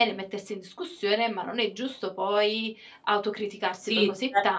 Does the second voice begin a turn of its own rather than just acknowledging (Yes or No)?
Yes